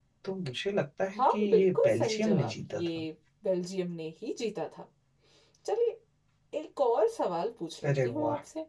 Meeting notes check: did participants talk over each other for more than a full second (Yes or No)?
Yes